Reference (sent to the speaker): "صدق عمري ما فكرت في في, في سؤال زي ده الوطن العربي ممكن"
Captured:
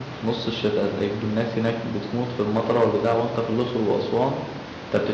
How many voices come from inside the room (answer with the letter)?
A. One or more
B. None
A